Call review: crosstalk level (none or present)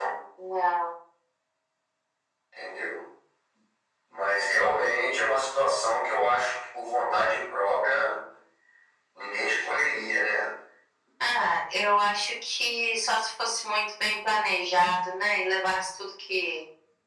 none